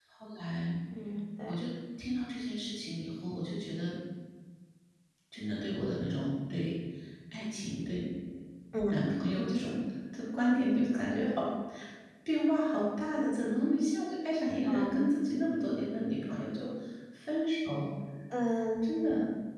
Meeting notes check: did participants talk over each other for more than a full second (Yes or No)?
No